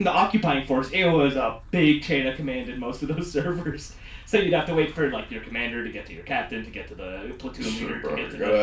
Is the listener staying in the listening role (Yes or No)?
No